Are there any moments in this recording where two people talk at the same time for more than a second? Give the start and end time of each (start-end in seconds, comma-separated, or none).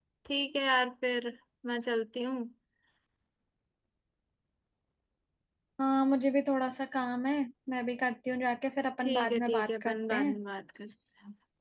9.0-10.4